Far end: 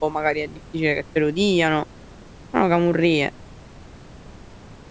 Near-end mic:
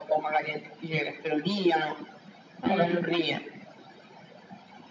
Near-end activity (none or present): present